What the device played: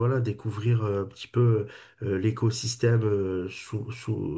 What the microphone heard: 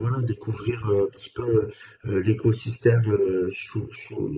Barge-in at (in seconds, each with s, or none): none